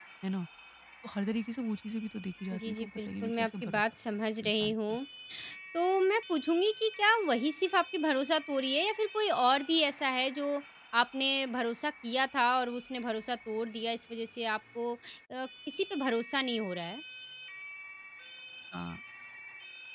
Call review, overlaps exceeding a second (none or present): present